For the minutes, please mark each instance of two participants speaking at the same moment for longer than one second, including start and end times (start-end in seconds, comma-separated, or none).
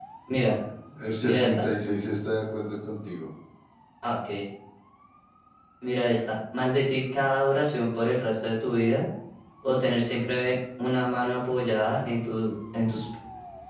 none